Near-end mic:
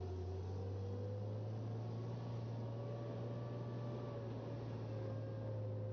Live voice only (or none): none